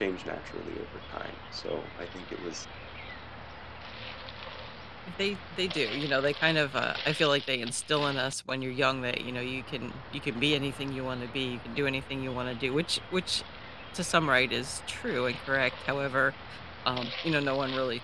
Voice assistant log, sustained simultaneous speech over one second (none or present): none